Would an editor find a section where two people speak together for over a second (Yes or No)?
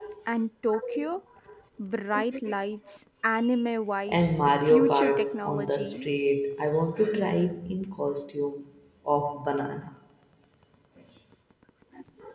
Yes